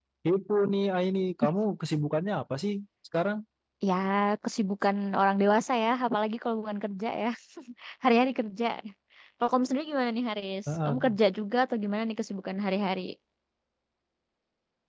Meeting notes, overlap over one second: none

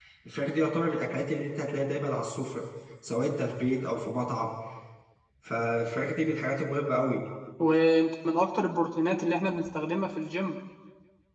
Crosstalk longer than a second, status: none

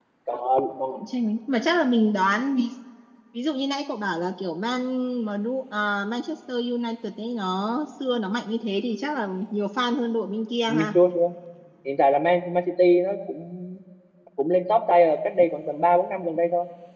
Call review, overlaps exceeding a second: none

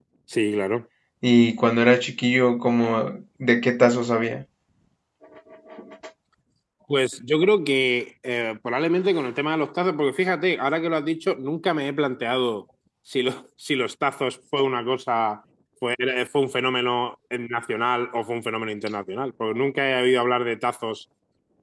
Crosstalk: none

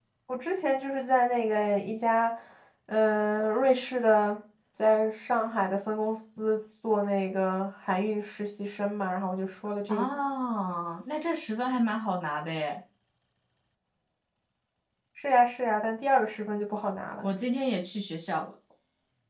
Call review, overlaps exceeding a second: none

